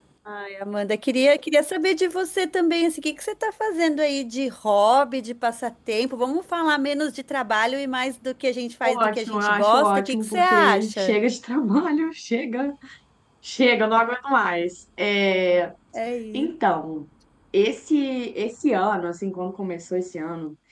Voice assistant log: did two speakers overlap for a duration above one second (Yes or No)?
Yes